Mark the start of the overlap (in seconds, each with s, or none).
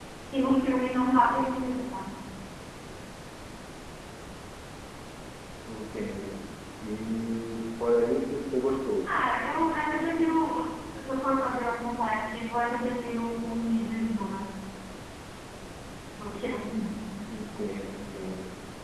none